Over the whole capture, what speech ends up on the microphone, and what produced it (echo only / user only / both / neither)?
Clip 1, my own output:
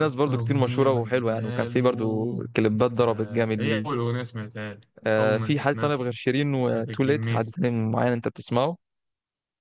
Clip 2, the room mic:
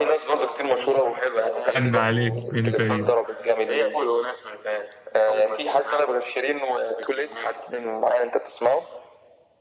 both